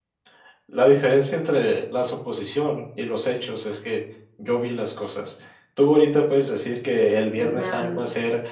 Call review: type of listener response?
listening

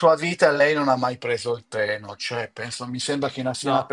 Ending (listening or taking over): listening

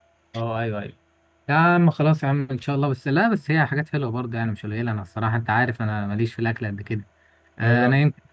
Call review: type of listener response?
listening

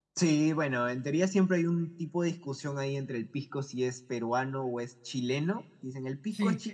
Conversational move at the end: listening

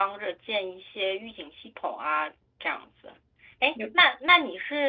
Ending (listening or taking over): listening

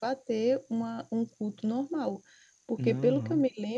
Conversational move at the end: listening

